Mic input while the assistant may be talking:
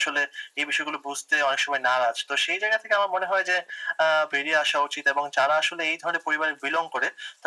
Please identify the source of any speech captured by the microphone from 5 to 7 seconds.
echo only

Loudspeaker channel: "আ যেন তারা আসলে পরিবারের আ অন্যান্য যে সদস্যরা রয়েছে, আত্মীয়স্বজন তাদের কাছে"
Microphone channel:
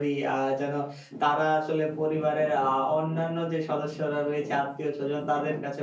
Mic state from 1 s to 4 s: echo only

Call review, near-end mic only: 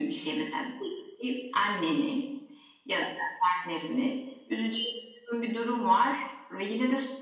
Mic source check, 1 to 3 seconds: echo only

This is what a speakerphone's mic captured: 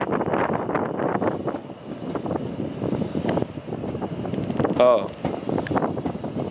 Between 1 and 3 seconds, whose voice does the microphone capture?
neither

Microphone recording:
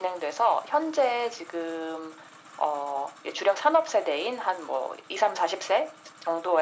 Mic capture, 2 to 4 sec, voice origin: echo only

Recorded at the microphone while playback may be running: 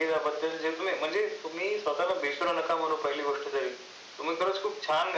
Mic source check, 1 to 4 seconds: echo only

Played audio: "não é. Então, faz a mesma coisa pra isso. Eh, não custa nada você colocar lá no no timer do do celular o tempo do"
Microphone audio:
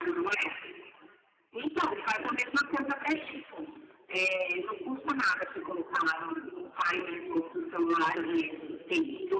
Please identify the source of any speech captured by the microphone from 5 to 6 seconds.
echo only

